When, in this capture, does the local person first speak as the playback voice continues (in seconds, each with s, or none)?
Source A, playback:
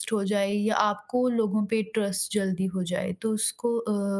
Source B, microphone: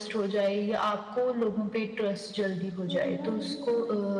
2.9 s